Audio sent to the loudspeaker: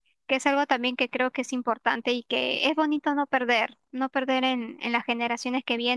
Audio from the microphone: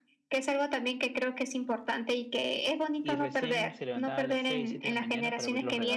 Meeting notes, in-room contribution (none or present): present